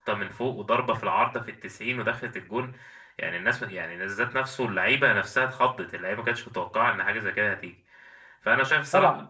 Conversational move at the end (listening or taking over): listening